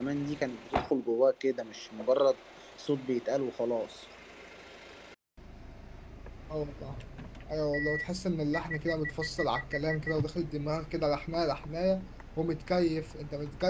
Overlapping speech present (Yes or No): No